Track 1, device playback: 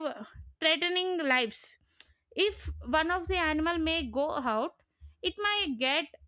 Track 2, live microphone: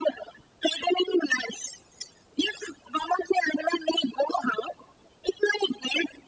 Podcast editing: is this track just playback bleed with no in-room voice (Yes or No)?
Yes